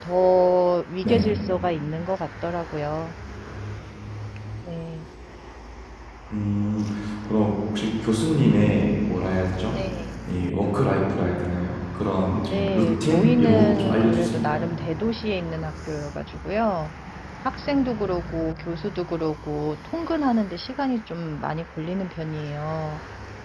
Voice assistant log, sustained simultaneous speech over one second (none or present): present